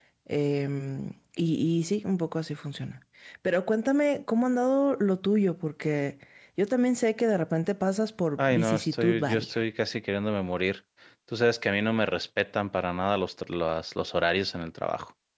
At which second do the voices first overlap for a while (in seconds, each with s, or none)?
8.4 s